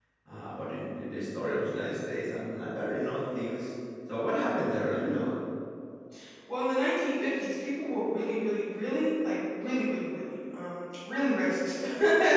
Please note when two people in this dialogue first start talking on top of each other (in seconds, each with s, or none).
none